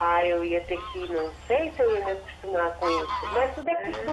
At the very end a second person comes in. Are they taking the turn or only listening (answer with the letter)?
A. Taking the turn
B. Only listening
A